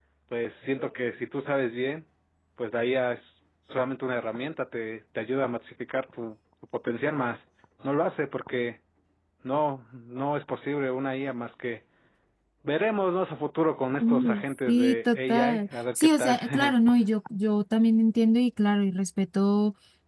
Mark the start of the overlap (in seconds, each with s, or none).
14.0 s